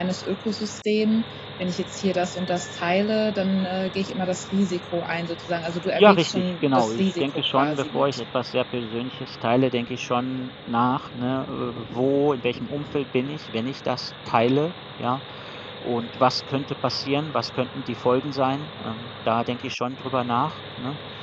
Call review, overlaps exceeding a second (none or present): present